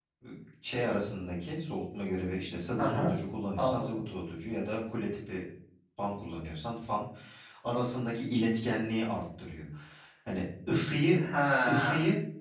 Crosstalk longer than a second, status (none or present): none